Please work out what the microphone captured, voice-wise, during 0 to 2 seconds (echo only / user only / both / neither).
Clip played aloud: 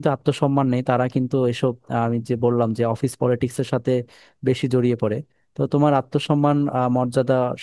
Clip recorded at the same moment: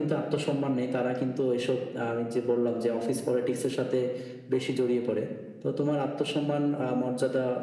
echo only